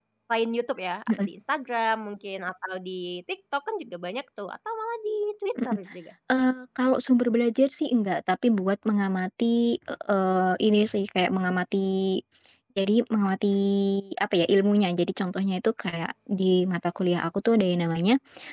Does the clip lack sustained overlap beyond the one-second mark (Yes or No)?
Yes